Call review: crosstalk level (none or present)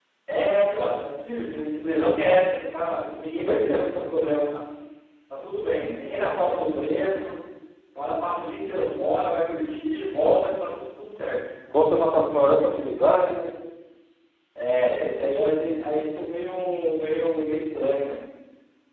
none